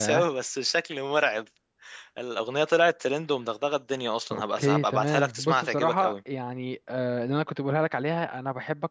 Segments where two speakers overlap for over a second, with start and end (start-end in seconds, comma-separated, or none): 4.3-6.1